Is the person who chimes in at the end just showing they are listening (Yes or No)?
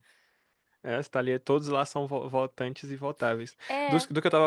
Yes